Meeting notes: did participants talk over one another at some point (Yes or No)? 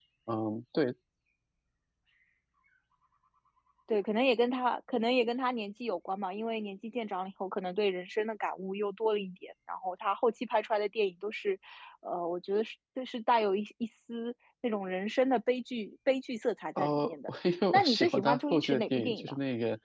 Yes